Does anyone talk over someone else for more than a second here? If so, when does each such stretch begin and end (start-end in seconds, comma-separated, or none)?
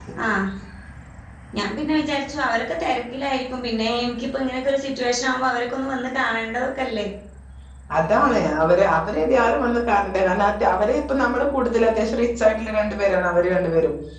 none